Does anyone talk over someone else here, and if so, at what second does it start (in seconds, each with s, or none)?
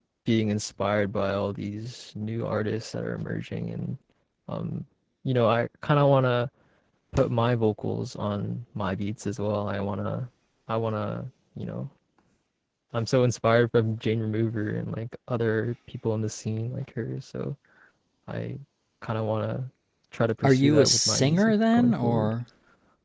20.4 s